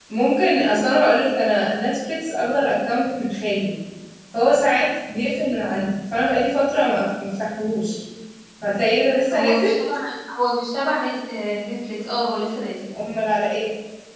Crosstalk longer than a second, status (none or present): none